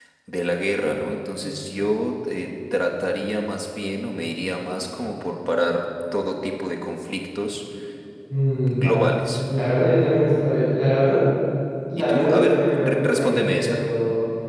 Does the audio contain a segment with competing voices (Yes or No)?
Yes